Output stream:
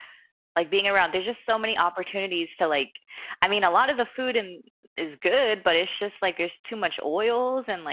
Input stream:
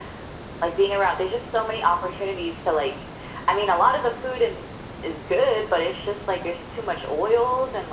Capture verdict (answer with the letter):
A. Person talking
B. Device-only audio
B